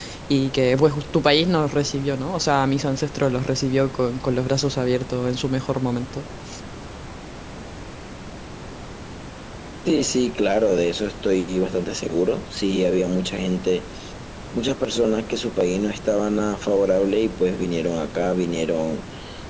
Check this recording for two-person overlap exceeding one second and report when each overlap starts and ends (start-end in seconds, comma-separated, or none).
none